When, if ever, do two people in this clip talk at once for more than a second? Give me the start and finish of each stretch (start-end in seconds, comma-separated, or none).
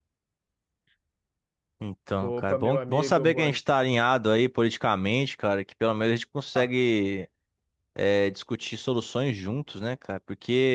2.2-3.6